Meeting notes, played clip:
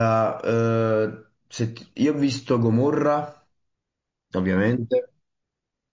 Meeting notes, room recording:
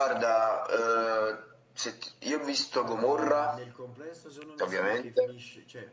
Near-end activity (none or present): present